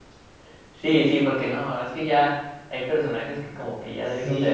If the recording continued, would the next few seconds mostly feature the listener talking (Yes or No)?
Yes